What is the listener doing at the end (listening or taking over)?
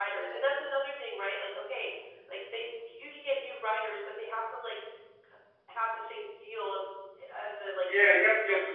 taking over